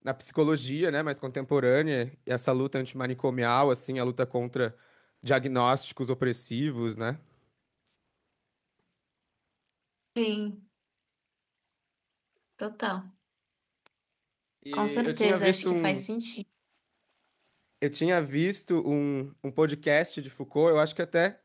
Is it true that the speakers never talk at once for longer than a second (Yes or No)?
No